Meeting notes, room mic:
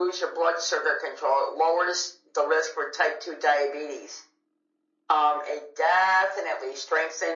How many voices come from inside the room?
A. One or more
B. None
B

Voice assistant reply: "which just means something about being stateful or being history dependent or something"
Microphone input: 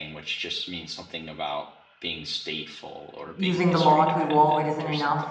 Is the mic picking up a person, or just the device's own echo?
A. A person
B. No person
A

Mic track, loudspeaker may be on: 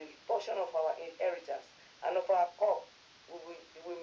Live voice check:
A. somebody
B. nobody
B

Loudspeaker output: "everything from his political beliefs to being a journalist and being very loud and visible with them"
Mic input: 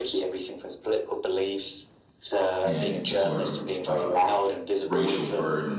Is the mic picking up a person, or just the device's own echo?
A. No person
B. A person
B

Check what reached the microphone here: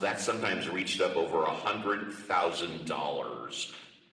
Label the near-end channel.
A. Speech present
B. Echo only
B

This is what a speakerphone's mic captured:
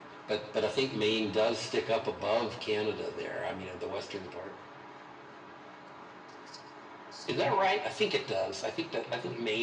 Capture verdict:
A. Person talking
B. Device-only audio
B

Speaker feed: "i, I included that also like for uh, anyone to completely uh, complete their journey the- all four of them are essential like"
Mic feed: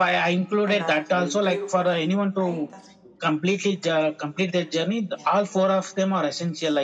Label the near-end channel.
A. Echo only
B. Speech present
B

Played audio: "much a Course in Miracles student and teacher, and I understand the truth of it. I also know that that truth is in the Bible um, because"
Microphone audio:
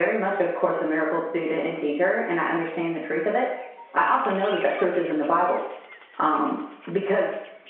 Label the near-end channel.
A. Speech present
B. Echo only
B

